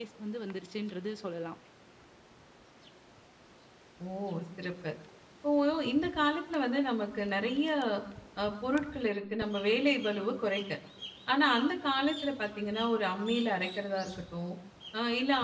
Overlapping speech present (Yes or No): No